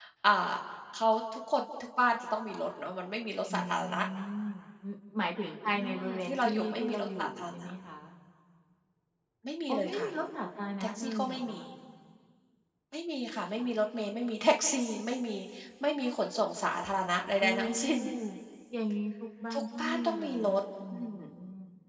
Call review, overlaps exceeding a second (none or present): present